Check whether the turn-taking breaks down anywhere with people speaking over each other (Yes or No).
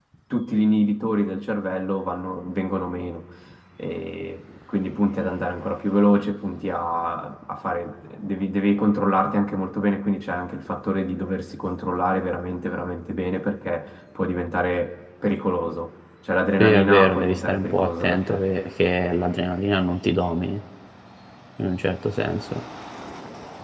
Yes